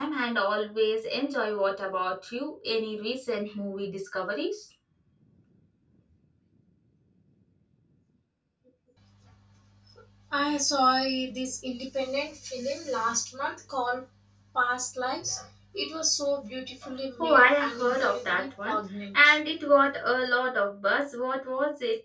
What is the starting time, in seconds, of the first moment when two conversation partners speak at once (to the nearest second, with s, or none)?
17 s